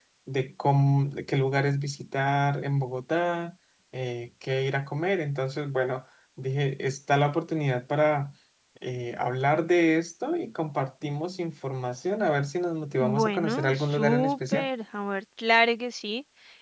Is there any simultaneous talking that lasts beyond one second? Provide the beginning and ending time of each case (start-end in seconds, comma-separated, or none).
13.0-14.7